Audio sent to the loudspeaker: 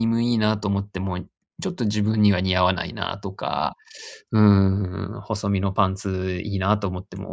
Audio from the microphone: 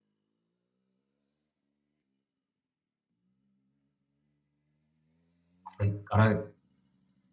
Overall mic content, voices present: user only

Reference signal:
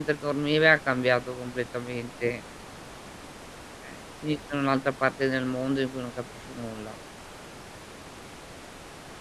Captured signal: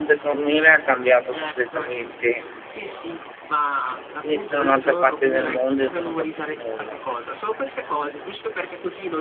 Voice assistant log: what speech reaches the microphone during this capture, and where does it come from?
both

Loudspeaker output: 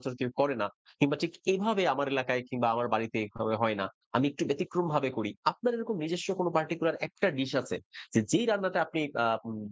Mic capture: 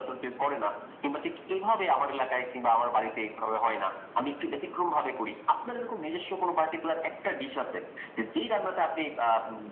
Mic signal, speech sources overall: echo only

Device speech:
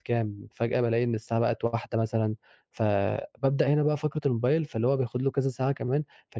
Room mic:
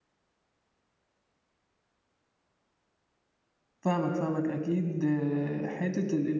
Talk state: user only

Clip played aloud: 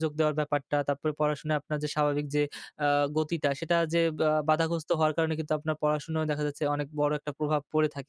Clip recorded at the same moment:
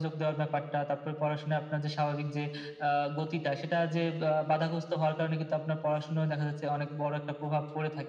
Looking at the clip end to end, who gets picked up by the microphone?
echo only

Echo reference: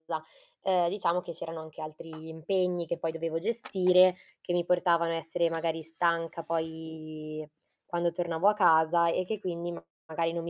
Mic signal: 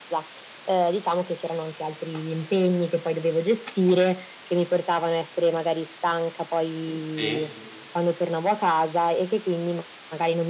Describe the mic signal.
both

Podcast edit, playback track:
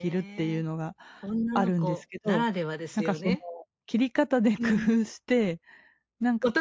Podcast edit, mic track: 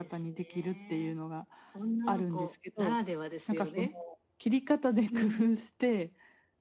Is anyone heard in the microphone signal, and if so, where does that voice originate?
echo only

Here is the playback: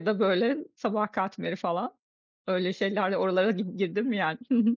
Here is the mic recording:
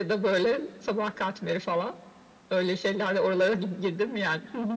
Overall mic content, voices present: echo only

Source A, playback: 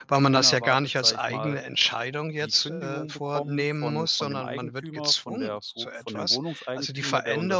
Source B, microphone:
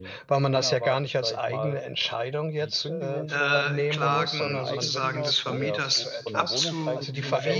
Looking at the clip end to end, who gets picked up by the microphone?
both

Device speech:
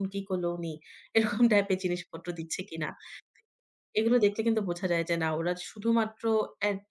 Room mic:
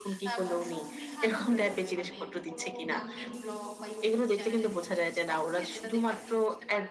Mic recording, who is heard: both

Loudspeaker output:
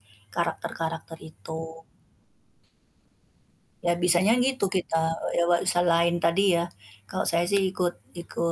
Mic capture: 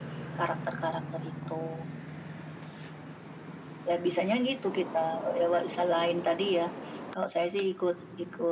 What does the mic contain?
echo only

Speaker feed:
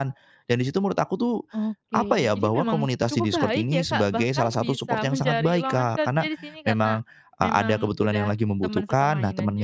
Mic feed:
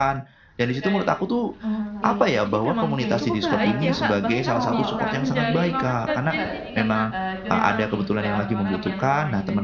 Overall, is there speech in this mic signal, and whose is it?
both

